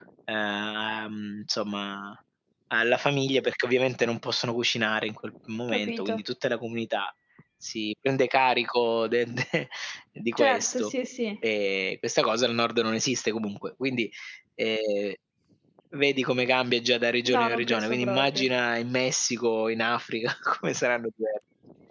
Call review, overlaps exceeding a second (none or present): present